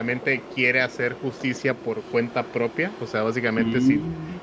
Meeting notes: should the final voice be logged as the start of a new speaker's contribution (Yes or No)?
No